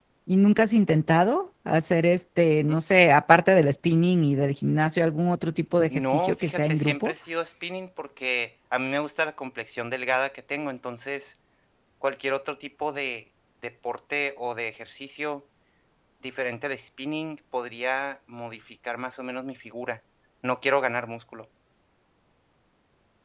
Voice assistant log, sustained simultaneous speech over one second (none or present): present